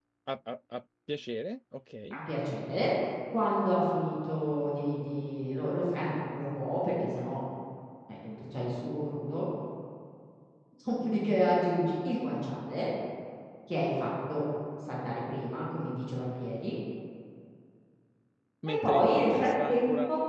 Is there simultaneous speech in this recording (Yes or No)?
Yes